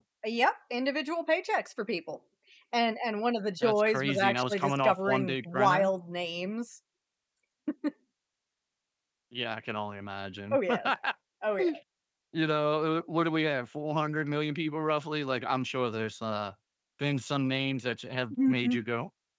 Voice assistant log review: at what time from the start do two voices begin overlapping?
3.6 s

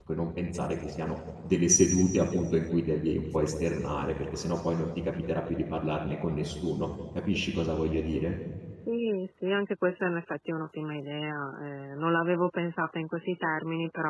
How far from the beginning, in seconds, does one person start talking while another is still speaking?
none

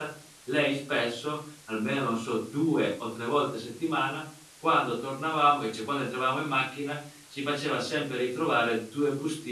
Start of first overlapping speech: none

